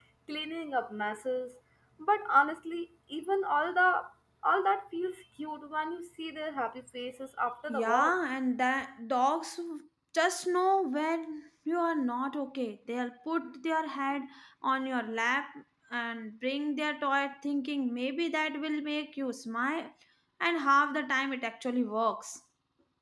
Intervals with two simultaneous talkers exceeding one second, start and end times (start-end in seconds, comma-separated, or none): none